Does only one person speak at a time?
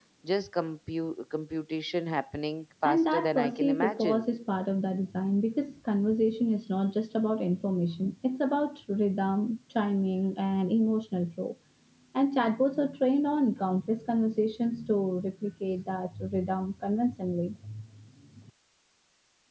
No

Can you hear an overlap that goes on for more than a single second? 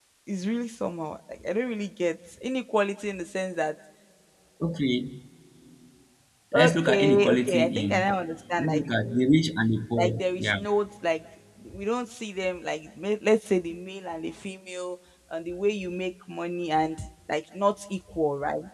Yes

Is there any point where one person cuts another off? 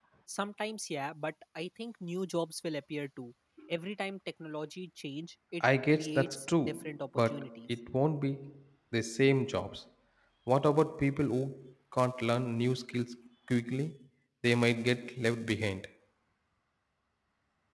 Yes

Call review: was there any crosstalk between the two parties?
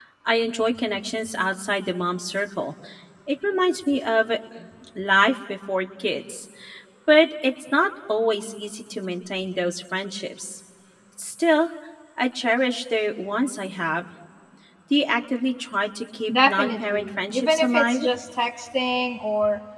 Yes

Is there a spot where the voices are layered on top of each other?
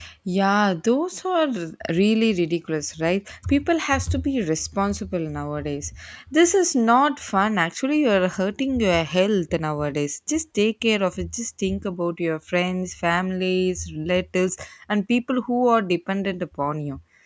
No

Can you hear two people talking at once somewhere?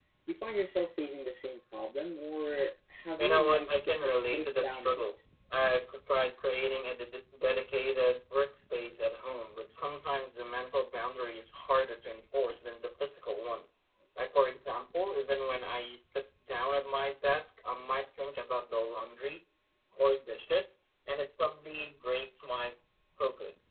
Yes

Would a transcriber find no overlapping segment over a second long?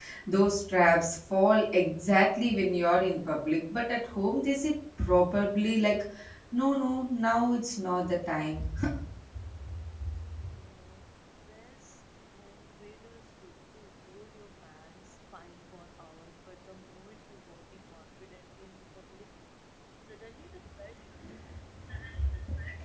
Yes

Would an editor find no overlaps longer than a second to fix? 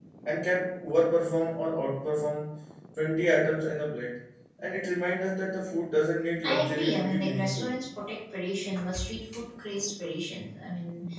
No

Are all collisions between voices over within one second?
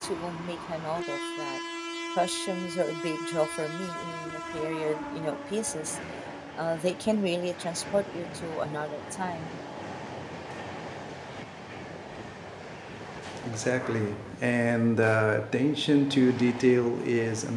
Yes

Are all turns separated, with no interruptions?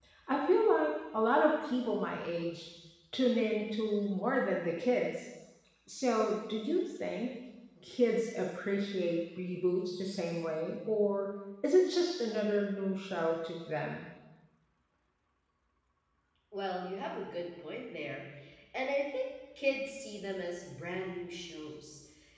Yes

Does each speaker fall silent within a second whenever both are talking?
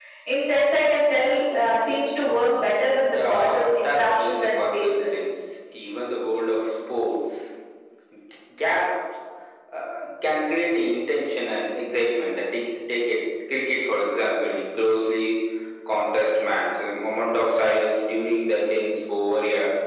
No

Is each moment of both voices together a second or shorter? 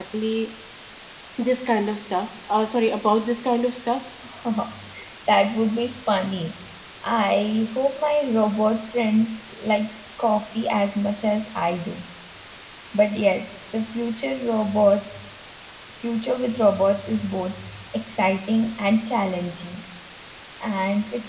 Yes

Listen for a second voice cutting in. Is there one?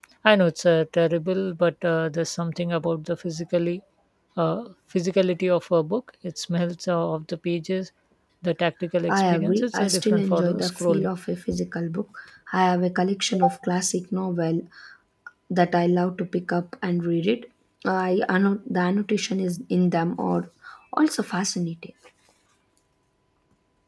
Yes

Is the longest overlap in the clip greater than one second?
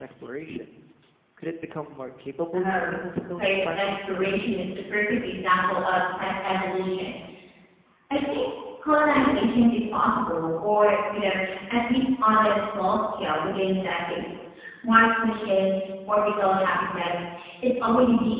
Yes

